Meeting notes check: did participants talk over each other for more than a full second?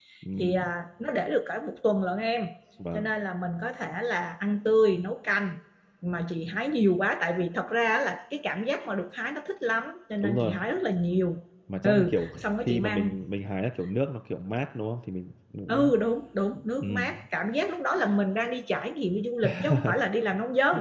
Yes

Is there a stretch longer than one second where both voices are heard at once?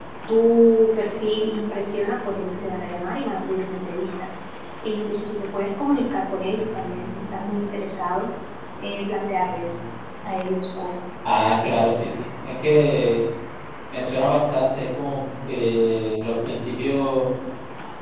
No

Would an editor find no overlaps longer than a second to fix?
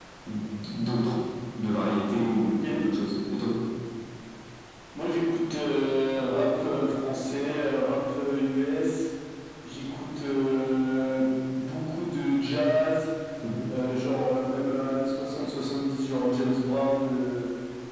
Yes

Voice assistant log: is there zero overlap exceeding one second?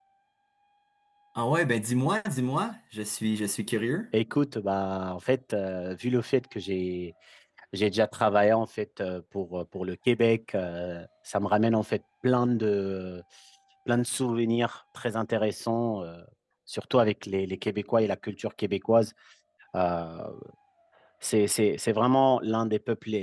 Yes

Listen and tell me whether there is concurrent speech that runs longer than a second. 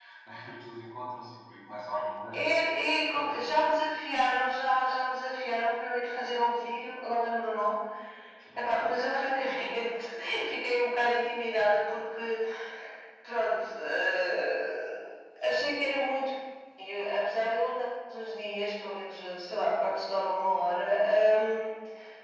No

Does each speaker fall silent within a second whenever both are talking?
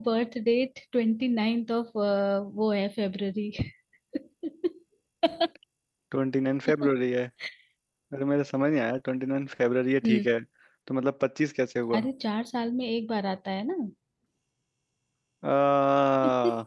Yes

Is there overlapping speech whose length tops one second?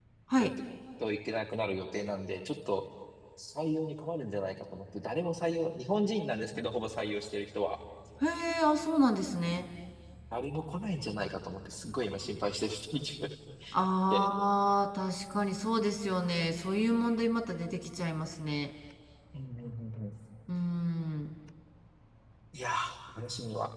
No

